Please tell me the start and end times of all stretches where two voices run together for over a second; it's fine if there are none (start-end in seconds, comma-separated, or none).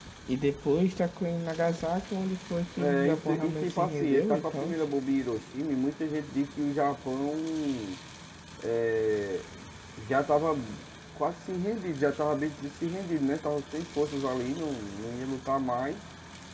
2.8-4.7